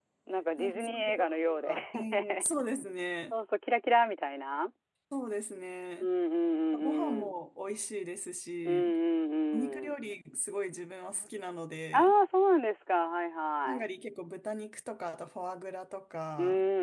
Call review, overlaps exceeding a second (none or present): present